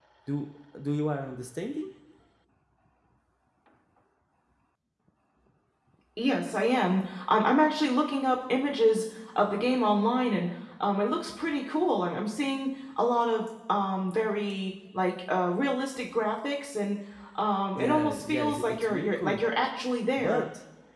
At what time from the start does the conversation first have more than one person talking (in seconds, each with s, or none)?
17.8 s